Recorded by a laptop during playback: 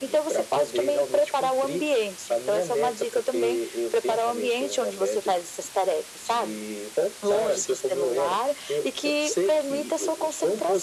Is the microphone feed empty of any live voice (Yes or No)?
Yes